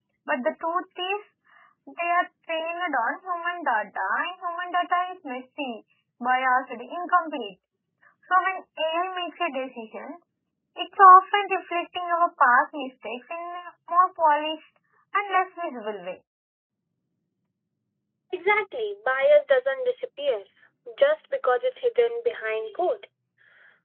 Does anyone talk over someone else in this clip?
No

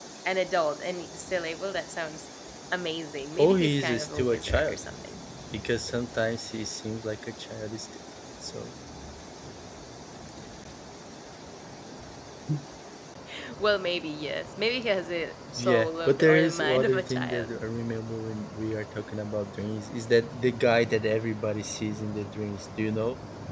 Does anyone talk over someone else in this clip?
Yes, from 3.3 s

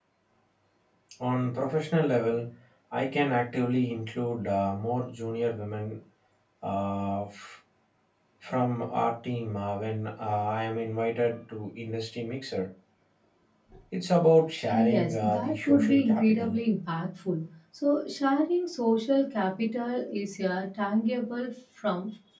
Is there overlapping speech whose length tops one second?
Yes, from 14.7 s

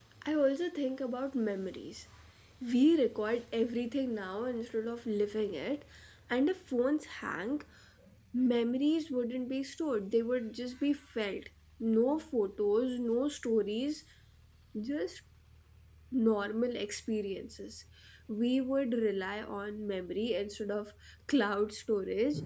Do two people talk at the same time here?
No

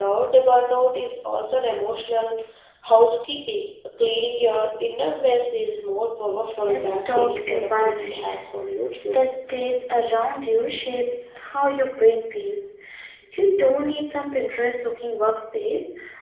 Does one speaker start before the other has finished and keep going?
Yes, from 6.5 s

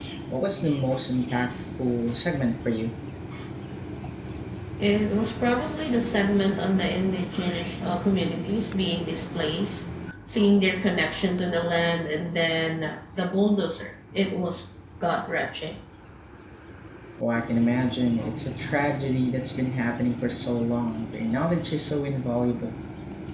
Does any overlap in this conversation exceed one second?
No

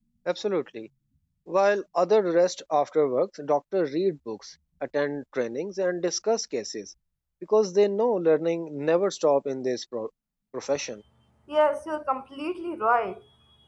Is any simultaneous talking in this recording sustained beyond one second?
No

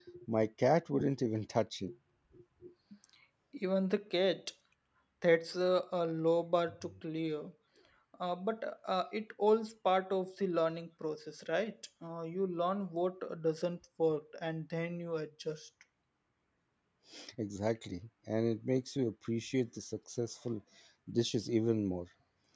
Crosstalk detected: No

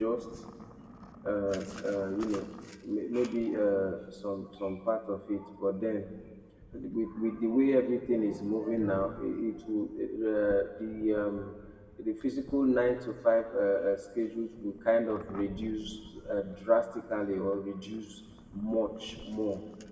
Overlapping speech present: No

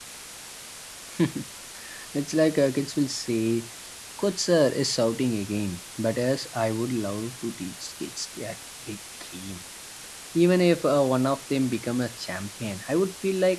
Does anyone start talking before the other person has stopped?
No

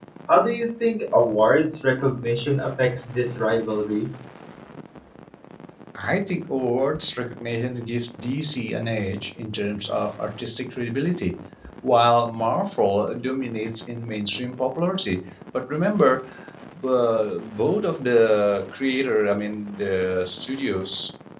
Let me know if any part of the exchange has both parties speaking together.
No

